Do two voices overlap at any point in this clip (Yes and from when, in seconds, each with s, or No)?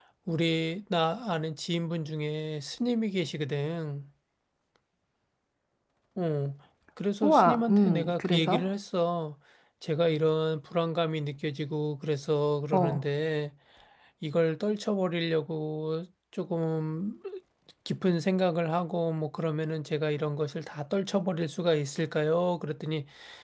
Yes, from 7.2 s